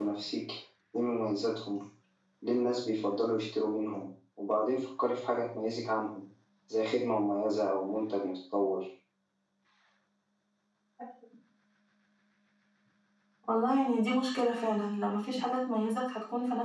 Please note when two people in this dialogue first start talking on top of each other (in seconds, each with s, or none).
none